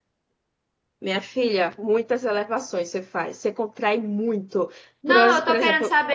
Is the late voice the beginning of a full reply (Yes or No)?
Yes